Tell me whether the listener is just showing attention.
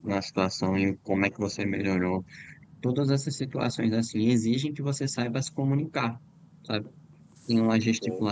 Yes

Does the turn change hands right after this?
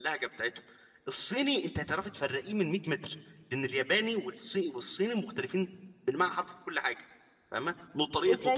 No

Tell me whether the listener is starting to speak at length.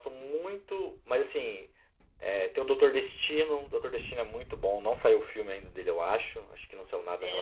Yes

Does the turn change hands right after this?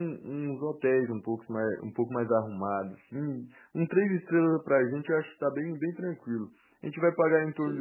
No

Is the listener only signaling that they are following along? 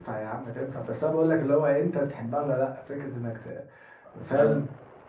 Yes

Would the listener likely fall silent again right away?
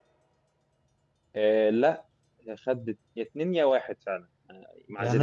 No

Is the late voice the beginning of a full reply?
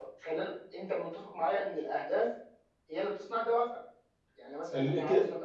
Yes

